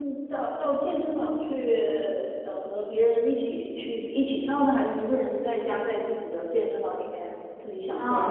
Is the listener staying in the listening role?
No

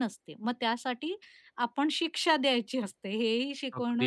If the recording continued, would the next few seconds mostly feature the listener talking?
Yes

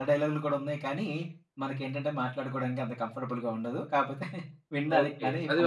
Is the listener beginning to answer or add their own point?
Yes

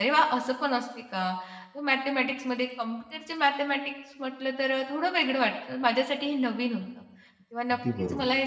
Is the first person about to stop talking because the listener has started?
No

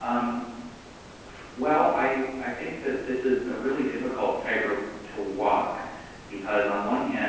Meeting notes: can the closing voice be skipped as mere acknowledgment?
Yes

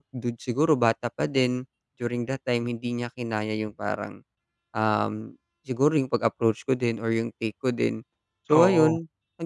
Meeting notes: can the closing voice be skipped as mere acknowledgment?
Yes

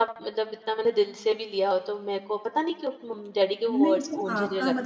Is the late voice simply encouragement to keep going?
No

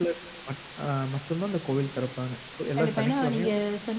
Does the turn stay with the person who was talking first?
No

